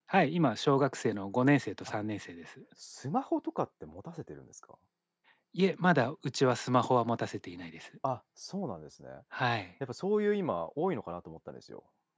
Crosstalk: none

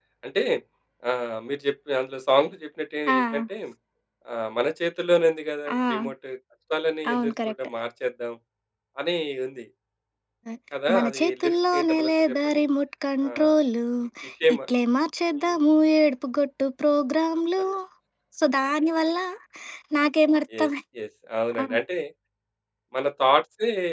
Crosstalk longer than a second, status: present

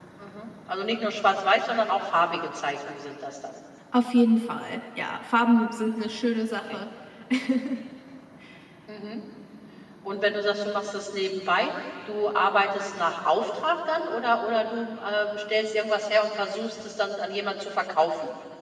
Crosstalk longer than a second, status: none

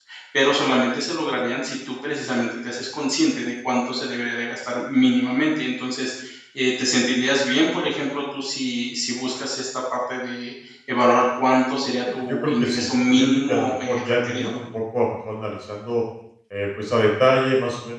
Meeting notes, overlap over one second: present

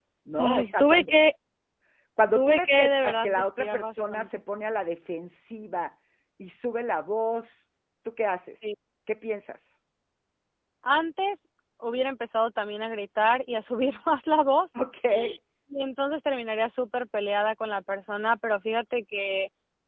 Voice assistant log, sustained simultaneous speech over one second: present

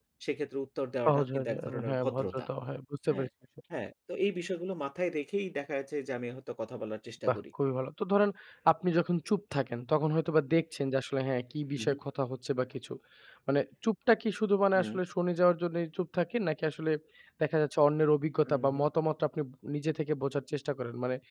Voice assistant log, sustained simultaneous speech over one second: present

